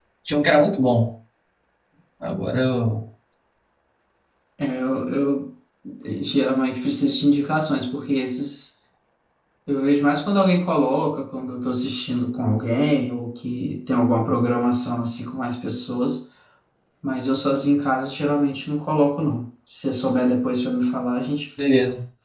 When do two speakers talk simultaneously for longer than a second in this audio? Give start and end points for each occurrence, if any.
none

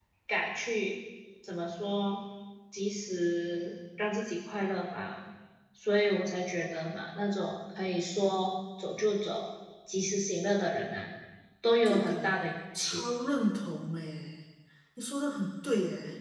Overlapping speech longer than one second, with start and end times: none

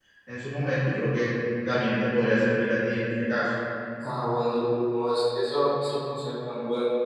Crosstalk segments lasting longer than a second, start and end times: none

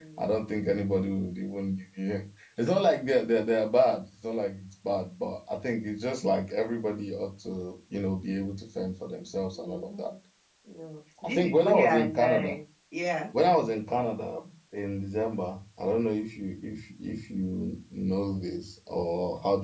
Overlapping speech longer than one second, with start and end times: 11.2-12.6

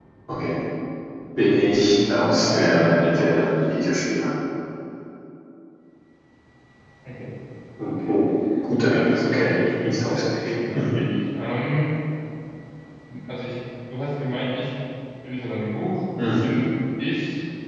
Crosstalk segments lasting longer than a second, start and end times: 1.7-3.6, 8.9-10.9

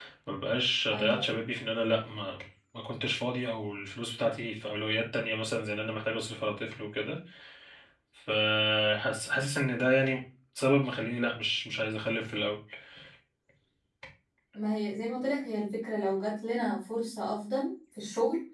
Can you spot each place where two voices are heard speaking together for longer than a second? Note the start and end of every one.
none

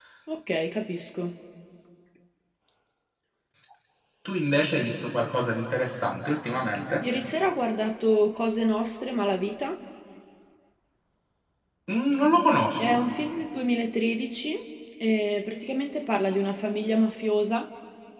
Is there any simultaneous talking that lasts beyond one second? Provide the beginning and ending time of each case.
none

